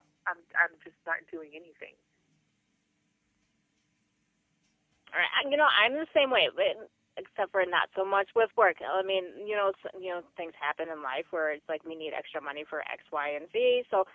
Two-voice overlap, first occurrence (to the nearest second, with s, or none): none